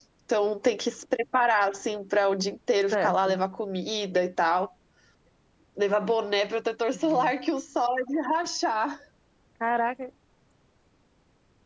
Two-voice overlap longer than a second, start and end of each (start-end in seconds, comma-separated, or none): none